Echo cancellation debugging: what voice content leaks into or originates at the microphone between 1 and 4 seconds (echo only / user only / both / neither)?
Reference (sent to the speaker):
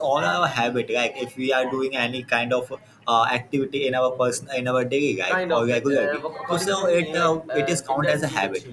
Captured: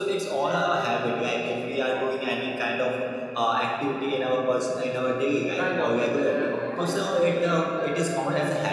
echo only